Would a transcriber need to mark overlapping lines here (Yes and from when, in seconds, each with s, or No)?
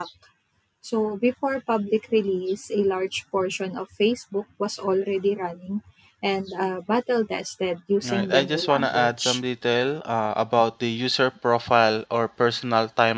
Yes, from 8.0 s